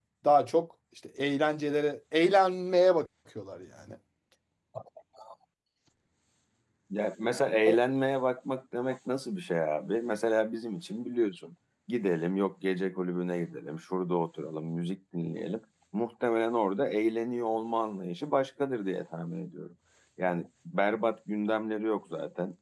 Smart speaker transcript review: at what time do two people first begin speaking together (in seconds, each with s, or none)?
none